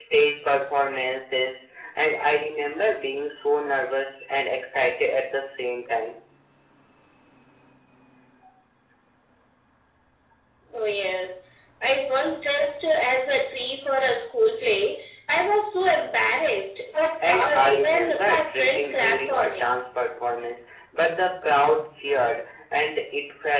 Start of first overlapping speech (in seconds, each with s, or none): 17.2 s